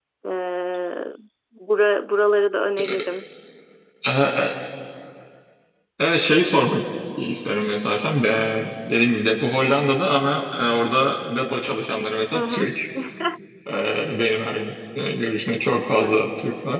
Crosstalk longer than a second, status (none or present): none